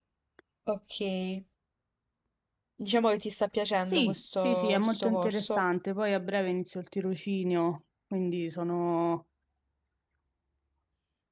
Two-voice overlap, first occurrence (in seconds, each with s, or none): 3.9 s